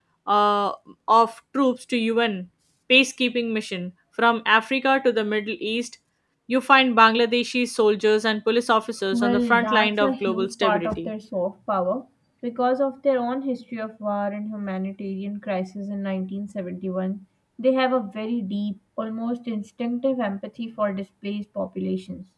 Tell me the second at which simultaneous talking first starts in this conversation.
9.1 s

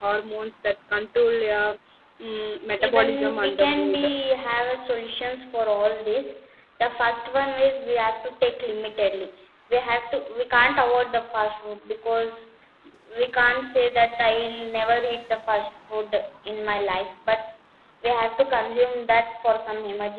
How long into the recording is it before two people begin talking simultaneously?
2.9 s

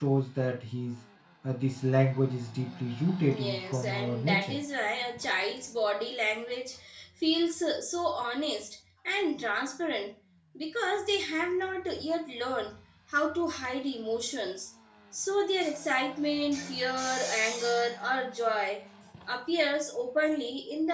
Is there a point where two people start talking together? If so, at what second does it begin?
3.2 s

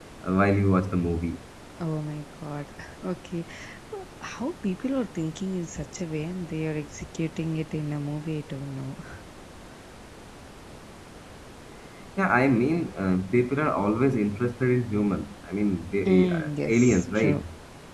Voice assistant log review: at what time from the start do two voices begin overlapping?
16.1 s

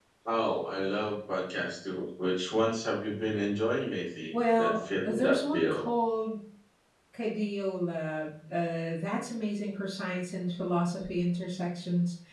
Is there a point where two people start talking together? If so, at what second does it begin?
4.3 s

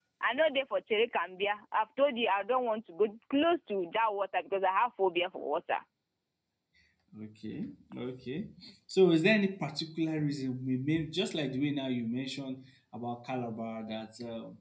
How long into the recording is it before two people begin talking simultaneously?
none

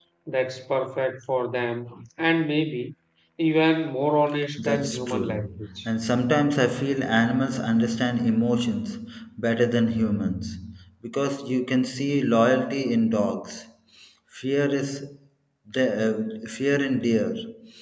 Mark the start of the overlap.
4.6 s

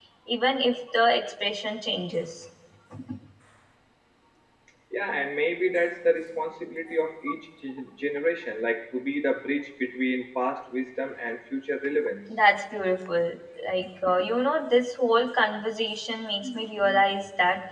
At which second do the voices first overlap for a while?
none

